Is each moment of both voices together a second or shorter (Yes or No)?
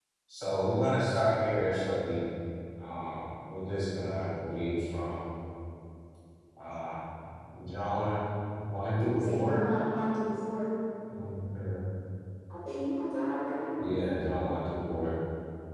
Yes